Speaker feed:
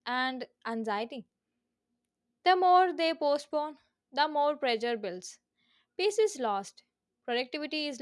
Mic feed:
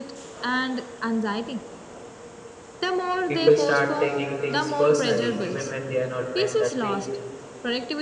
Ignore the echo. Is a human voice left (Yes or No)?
Yes